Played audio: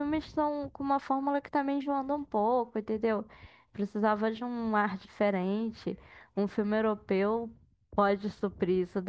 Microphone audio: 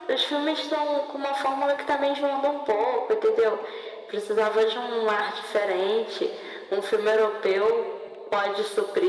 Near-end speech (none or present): none